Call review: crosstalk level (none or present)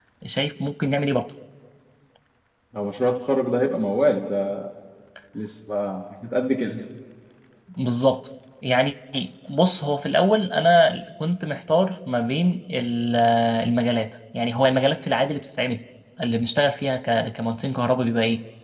none